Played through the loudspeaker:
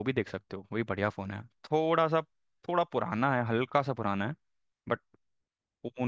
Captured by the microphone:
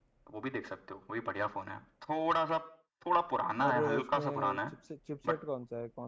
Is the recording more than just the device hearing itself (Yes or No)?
Yes